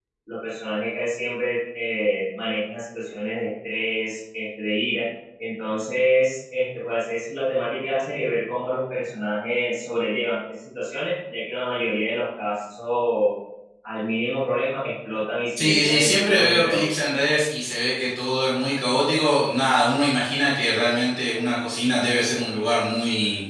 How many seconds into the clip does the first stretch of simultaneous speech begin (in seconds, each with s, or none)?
15.6 s